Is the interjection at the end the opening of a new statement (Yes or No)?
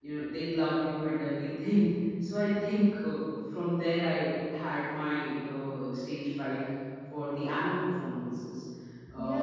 Yes